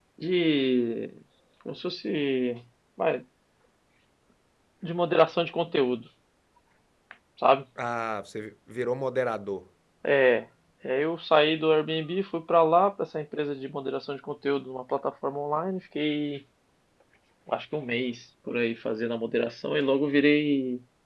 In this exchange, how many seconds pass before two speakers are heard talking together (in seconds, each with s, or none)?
none